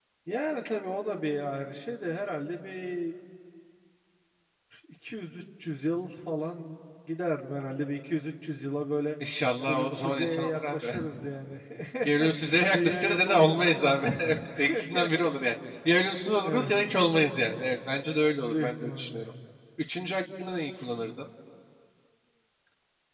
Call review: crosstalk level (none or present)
present